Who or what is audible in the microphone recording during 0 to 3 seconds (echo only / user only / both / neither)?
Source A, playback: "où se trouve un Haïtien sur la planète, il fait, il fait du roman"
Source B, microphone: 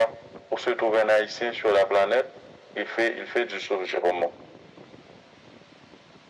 echo only